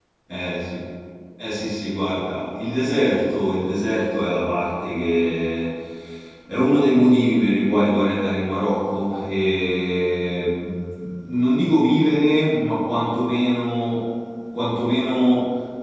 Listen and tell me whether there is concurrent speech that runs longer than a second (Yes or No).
No